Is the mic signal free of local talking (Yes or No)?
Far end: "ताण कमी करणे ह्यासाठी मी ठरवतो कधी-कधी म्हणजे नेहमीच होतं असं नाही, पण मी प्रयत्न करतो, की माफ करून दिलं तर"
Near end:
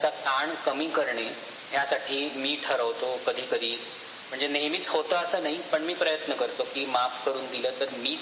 Yes